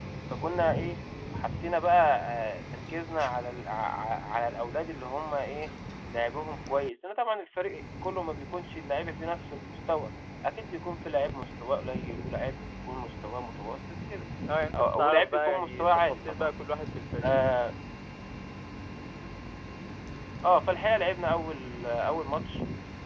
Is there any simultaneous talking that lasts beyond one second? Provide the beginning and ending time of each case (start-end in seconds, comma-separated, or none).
15.0-16.5